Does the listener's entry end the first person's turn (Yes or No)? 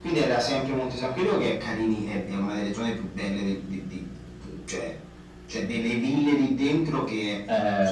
Yes